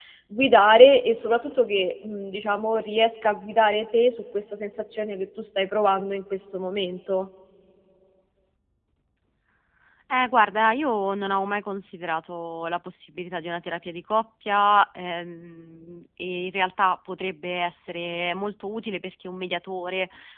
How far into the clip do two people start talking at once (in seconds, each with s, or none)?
none